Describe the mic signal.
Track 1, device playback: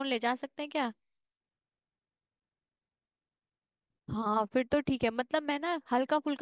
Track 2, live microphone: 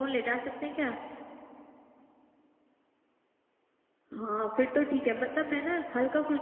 echo only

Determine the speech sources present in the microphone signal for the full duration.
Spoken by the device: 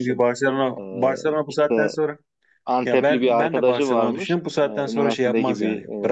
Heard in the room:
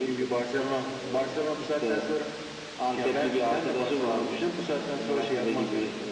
echo only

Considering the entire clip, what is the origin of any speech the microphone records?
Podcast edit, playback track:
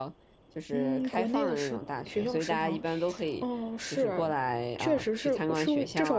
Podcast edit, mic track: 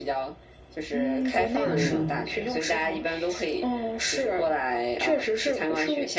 both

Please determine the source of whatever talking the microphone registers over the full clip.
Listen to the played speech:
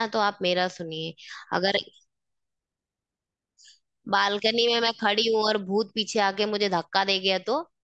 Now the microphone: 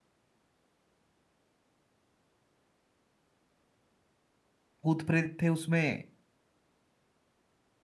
user only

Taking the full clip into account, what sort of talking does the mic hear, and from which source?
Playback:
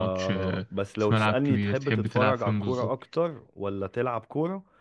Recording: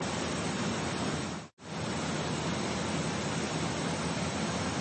neither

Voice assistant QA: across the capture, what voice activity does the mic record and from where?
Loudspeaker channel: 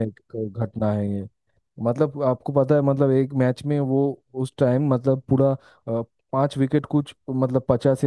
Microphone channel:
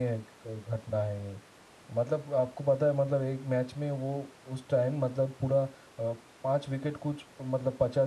echo only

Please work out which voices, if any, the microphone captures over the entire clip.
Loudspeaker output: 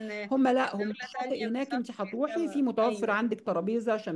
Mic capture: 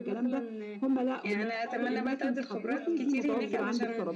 both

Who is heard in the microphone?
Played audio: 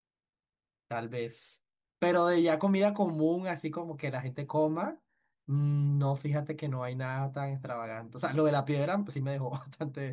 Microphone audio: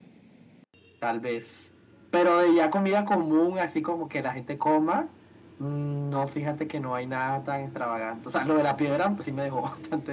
echo only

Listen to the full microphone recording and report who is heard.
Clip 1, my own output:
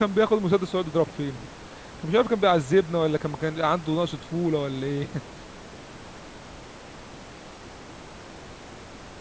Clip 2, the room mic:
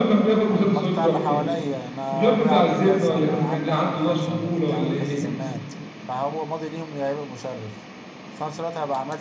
both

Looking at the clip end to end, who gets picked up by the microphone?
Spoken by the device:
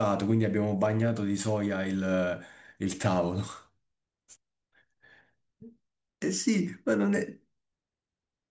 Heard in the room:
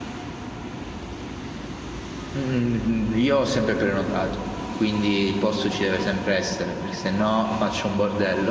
user only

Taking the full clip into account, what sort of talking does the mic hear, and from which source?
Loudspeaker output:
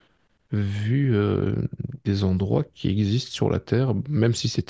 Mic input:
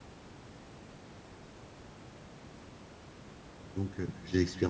user only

